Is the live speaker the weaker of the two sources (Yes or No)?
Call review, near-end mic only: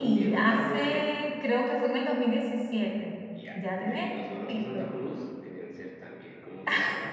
No